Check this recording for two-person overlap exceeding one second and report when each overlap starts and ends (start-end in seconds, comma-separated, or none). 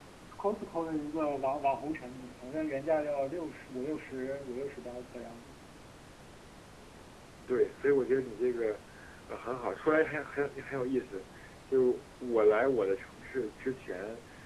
none